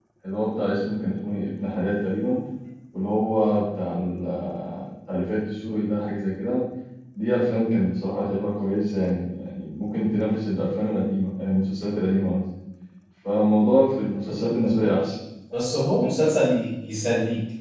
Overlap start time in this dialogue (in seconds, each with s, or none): none